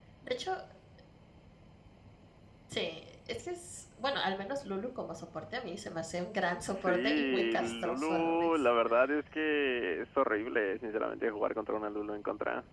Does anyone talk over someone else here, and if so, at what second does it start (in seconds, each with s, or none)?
6.7 s